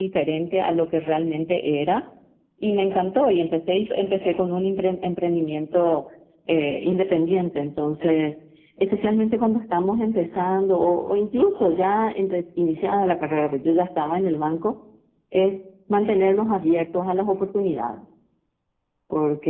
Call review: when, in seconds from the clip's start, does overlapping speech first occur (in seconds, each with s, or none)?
none